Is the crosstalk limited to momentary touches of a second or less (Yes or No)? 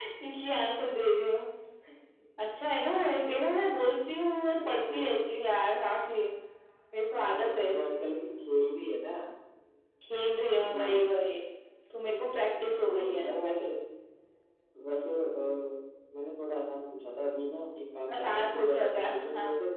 No